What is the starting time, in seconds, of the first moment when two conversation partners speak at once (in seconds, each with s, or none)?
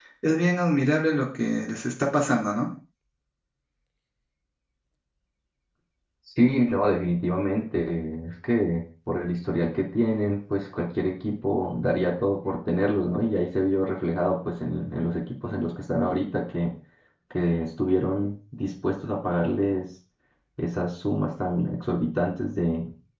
none